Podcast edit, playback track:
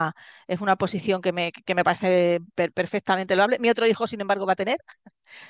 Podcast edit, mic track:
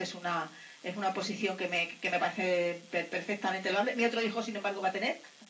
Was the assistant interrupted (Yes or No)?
No